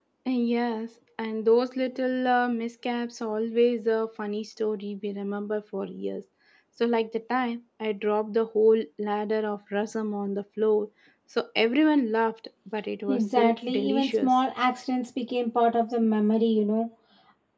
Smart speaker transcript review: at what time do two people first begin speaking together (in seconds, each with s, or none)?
13.1 s